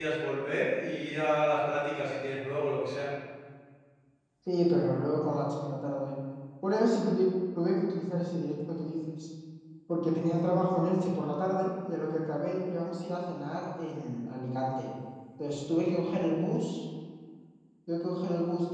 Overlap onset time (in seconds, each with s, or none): none